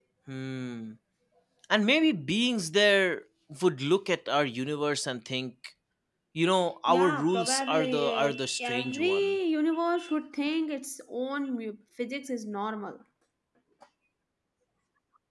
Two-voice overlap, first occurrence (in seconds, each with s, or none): 6.9 s